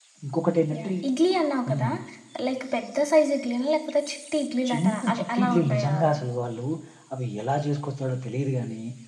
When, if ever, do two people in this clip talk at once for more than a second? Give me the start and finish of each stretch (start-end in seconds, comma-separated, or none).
4.7-6.2